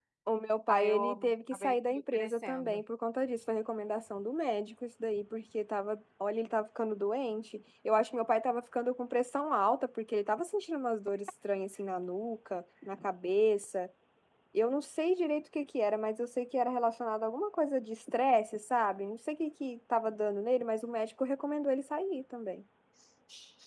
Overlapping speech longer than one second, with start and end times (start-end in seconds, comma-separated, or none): 0.7-2.8